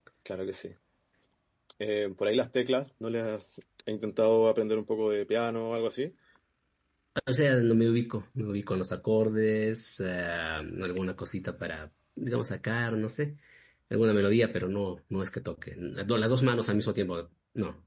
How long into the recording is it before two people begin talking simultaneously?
none

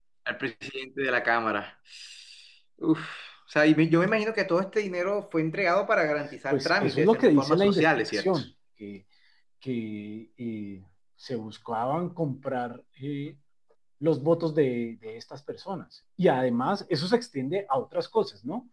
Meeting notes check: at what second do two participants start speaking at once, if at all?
6.5 s

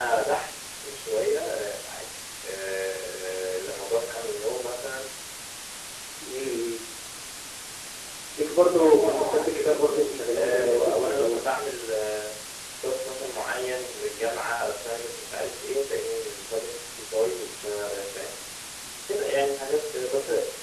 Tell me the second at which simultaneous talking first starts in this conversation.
8.7 s

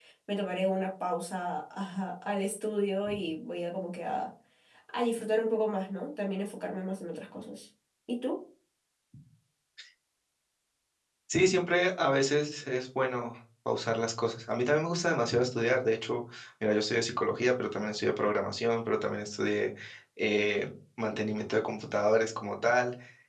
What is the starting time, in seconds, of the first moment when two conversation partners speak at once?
none

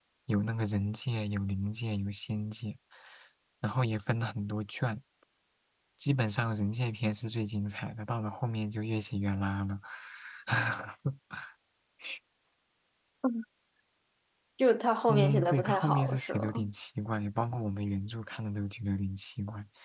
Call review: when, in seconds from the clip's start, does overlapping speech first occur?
15.1 s

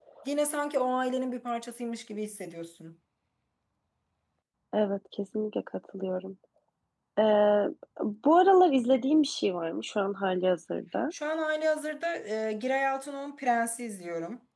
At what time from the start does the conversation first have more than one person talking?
none

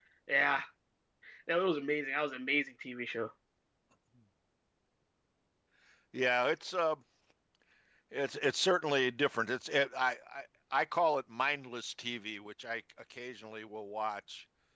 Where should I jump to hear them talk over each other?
none

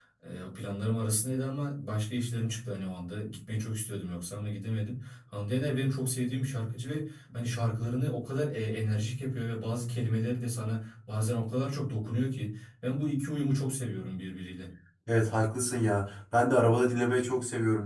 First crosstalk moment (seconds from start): none

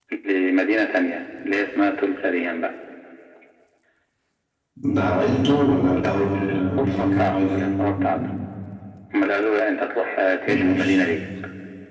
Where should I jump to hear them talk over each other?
5.9 s

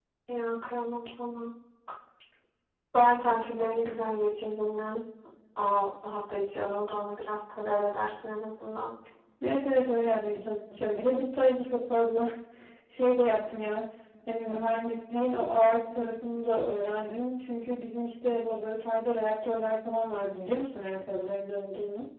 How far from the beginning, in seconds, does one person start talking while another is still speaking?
none

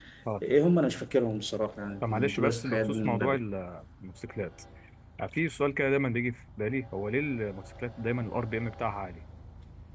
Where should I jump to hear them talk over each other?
2.0 s

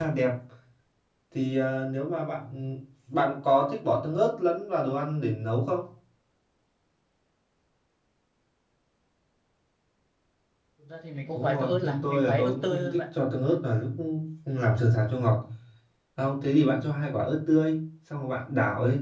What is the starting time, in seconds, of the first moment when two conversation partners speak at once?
11.4 s

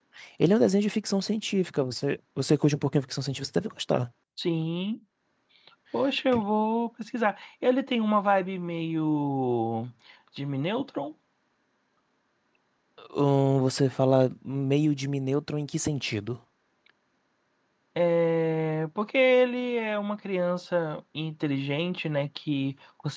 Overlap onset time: none

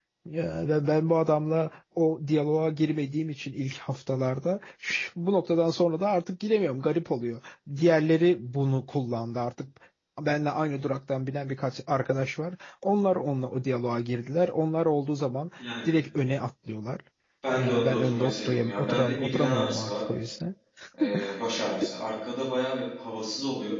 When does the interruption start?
17.6 s

